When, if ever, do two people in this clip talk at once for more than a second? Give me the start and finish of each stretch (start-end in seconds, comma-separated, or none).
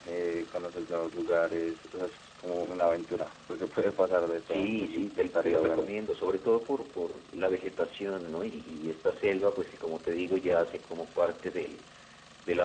4.5-5.9